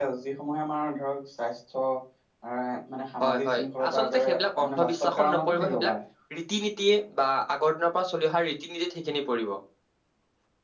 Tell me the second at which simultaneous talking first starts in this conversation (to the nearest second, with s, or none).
3 s